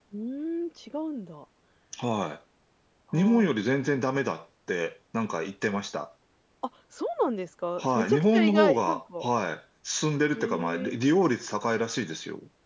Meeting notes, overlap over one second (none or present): present